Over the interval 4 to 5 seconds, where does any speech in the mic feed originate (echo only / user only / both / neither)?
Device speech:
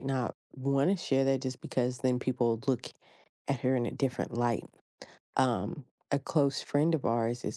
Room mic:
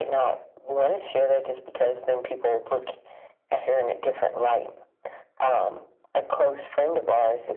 echo only